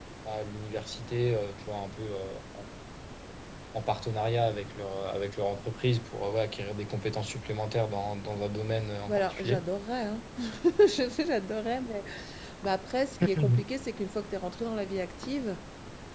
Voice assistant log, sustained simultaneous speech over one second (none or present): none